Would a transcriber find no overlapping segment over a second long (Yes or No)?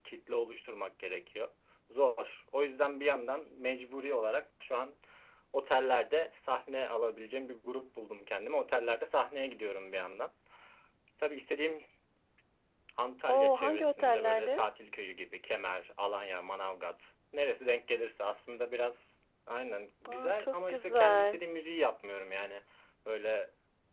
No